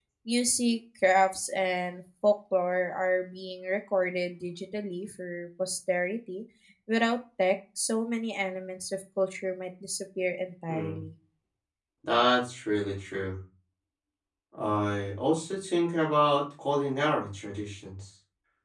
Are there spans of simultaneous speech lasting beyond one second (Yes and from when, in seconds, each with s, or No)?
No